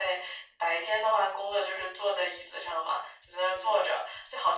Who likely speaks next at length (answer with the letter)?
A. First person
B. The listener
A